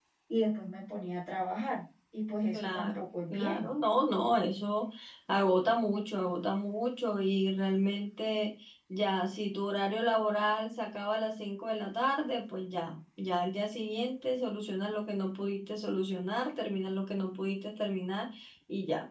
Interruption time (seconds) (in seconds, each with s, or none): 2.5 s